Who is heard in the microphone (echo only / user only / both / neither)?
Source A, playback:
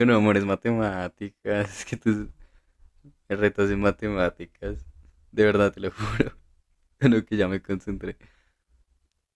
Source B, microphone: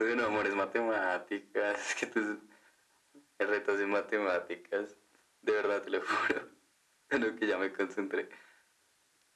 echo only